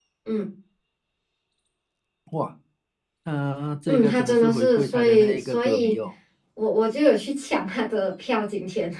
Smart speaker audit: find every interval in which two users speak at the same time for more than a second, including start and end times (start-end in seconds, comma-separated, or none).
3.9-6.0